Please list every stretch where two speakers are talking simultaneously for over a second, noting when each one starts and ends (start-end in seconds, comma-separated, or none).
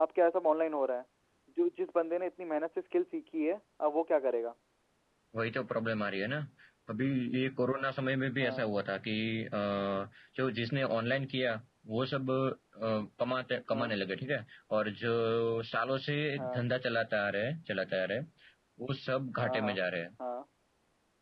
none